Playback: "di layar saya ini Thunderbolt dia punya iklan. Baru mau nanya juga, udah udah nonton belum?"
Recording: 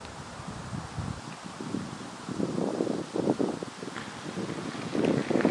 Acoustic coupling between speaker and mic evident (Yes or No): No